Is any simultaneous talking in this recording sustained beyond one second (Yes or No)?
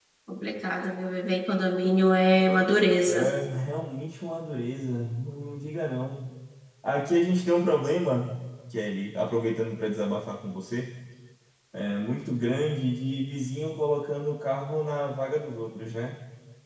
No